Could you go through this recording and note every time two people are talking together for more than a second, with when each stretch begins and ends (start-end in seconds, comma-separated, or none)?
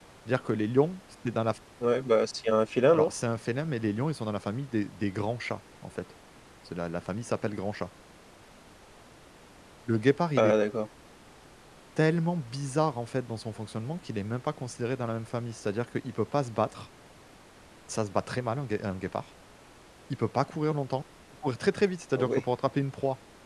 none